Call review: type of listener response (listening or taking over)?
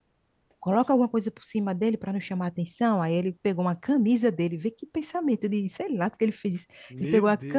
listening